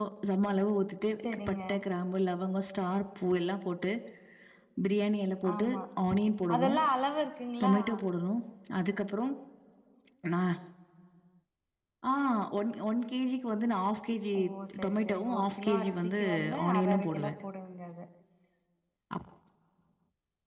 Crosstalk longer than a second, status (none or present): present